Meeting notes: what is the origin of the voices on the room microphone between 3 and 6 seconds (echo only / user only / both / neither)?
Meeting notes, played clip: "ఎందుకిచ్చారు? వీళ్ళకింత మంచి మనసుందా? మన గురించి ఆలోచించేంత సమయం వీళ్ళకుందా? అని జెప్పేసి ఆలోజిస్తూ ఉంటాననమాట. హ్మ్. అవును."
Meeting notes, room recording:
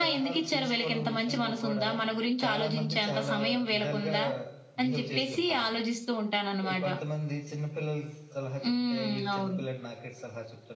both